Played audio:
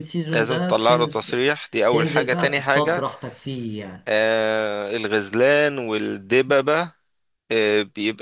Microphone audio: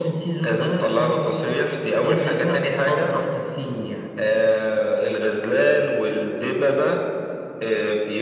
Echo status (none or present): present